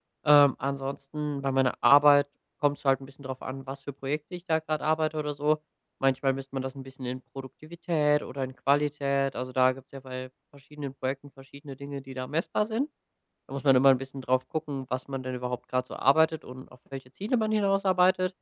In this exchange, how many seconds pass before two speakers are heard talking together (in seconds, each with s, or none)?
none